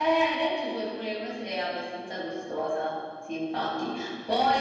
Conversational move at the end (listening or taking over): listening